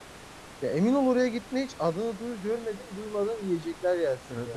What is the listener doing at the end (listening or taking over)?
taking over